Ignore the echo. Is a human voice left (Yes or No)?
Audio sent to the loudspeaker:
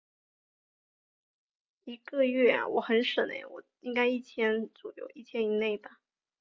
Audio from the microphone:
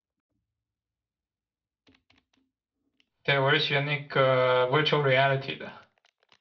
Yes